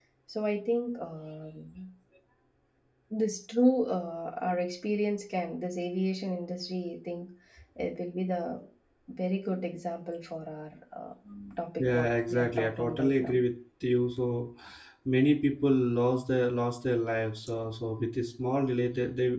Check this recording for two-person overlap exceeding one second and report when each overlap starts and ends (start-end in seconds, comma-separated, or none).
11.8-13.4